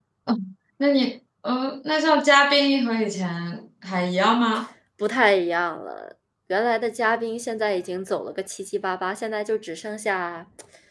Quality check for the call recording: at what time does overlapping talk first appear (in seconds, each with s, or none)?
none